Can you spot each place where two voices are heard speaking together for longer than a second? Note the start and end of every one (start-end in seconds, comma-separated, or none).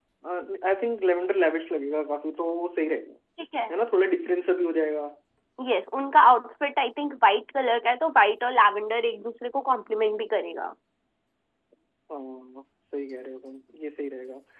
none